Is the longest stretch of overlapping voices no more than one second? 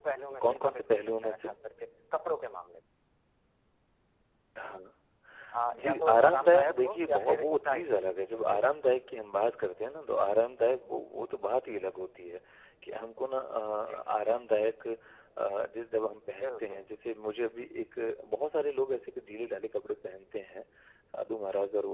No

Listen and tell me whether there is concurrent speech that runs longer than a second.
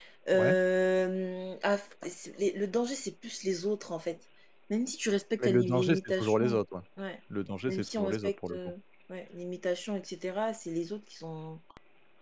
Yes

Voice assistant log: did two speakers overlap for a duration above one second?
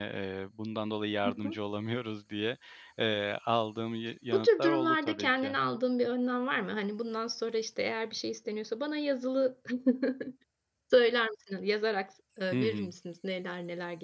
Yes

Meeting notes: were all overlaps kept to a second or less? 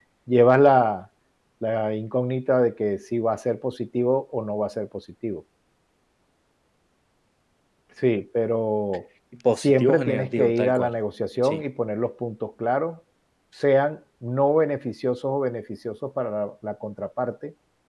No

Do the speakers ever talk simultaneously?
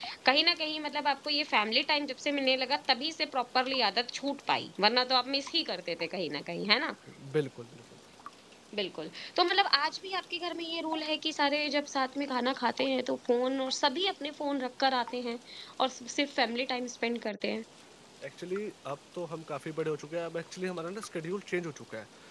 No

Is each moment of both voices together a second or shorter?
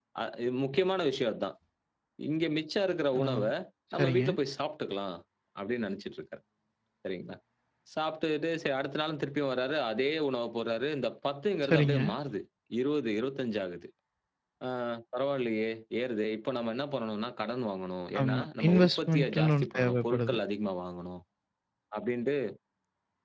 No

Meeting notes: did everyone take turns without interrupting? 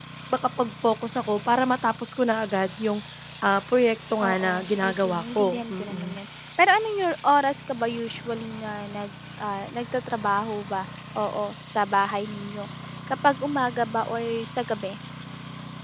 No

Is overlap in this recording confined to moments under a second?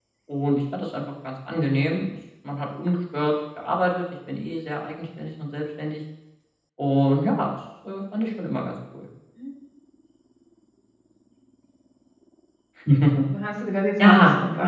Yes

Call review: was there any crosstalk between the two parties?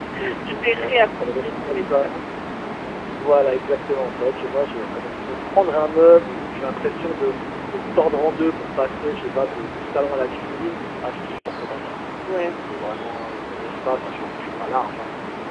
Yes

